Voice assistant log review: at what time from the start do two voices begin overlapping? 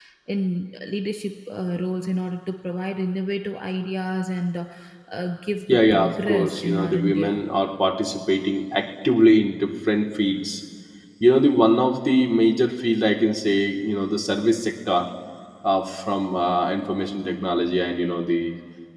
5.7 s

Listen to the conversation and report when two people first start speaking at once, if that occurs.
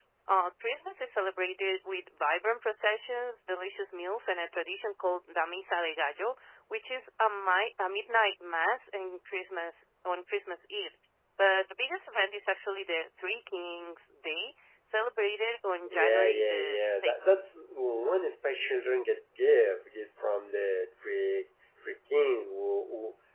15.8 s

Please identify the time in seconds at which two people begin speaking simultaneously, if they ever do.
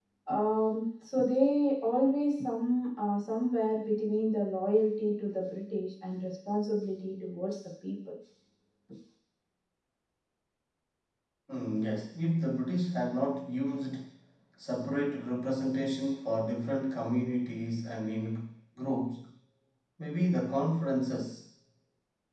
none

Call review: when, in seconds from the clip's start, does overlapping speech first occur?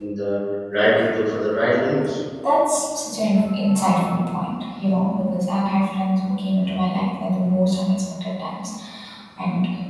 none

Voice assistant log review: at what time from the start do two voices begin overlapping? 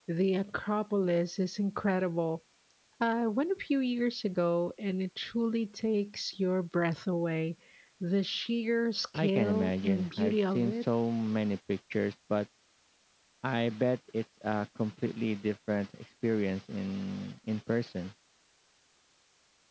9.2 s

